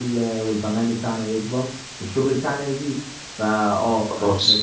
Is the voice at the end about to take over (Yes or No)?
No